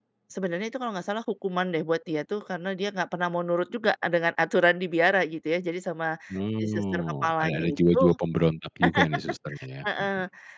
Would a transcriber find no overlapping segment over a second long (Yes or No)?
No